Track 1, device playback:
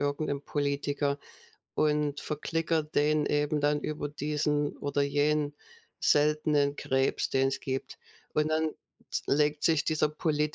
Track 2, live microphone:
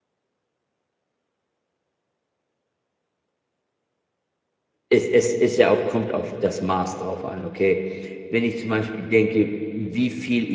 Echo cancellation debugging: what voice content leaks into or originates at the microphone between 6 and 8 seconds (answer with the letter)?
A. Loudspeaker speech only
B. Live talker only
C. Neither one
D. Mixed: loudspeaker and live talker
B